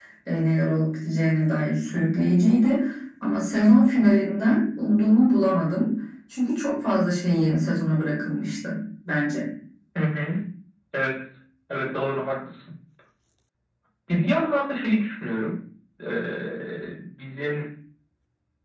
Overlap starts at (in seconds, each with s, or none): none